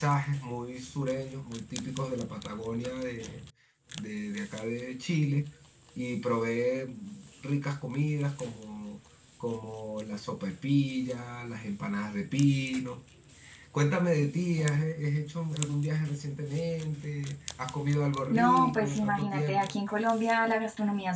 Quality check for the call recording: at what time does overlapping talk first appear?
18.3 s

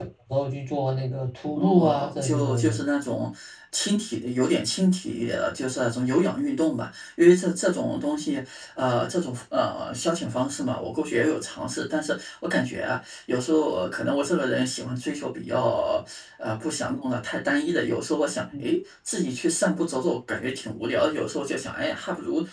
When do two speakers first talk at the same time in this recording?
1.5 s

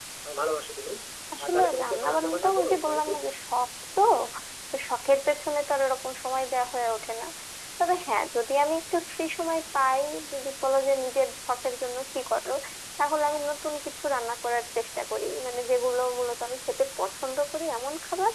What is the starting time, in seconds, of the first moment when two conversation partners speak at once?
1.4 s

